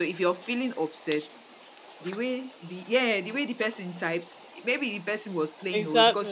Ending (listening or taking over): listening